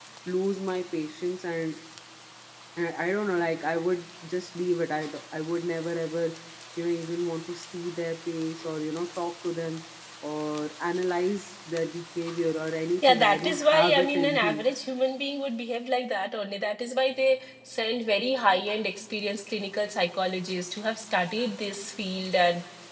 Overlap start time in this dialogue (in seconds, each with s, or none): 13.0 s